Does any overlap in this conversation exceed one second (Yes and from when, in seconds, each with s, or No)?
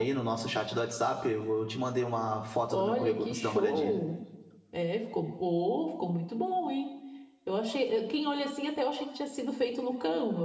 Yes, from 2.7 s